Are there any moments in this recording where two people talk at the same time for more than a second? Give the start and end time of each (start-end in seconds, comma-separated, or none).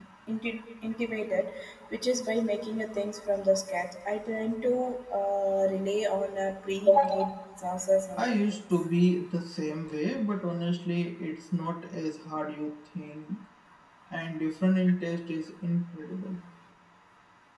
none